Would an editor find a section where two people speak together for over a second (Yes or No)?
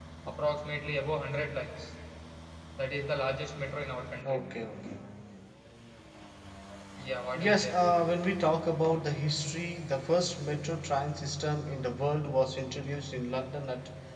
No